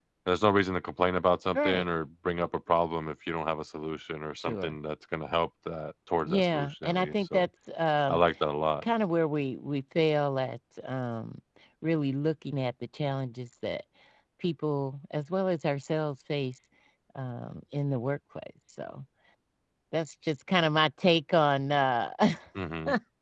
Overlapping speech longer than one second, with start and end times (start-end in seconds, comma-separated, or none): 6.2-7.5